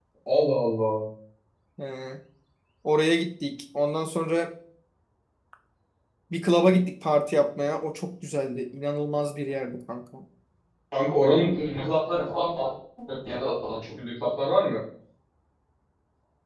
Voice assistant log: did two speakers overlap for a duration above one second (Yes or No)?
No